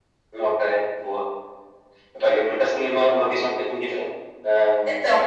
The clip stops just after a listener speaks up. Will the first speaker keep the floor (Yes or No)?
Yes